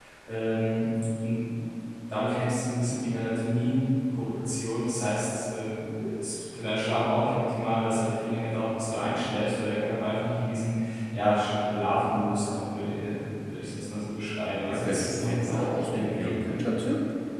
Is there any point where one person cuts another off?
Yes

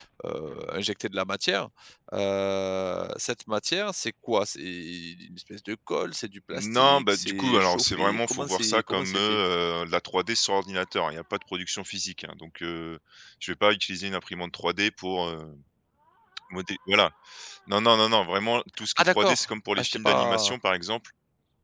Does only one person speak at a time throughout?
No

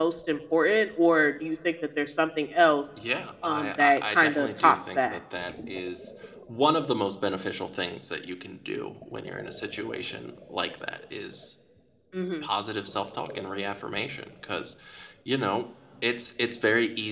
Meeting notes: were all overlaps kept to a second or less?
No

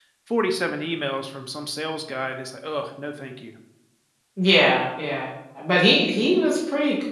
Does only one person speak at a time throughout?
Yes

